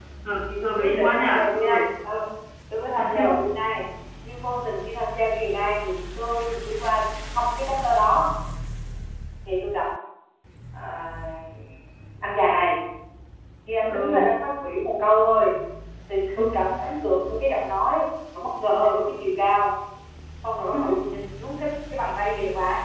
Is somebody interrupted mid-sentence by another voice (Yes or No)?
Yes